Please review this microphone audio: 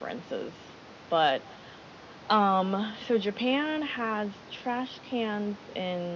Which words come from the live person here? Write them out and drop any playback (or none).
none